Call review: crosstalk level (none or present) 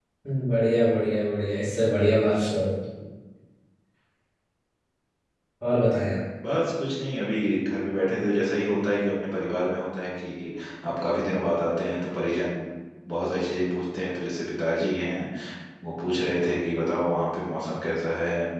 none